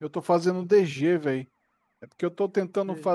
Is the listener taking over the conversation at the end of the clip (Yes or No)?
No